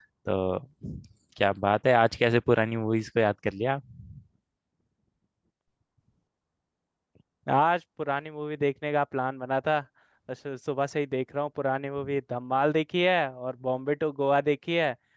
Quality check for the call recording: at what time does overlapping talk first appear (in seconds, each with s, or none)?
none